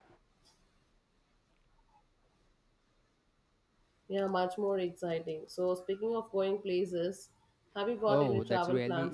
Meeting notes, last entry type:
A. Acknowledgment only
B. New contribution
B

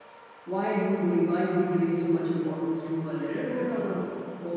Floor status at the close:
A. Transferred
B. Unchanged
B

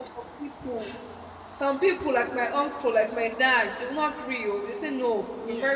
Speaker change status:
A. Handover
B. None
B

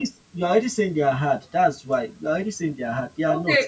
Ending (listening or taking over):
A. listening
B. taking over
B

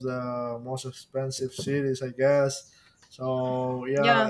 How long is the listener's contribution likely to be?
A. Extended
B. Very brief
B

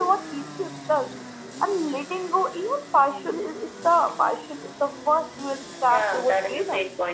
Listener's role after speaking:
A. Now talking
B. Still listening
A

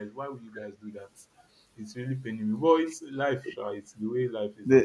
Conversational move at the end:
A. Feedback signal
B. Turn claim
B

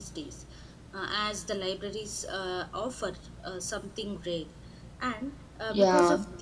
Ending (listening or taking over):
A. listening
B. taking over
A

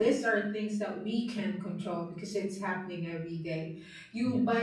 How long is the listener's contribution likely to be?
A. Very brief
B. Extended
A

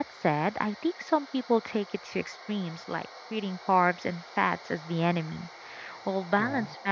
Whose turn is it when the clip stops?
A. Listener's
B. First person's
B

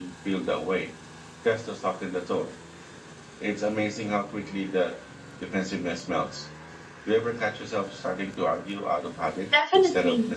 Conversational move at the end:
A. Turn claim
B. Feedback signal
A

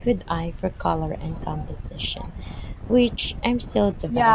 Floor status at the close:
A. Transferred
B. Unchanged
A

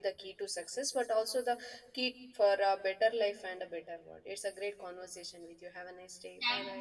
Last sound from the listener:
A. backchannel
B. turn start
B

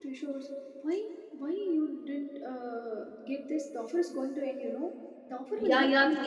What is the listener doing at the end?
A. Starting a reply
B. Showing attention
A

